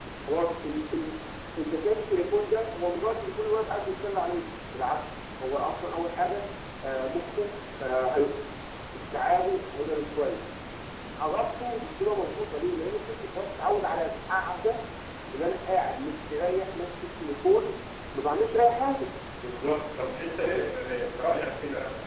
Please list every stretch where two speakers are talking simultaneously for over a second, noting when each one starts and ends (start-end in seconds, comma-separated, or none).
none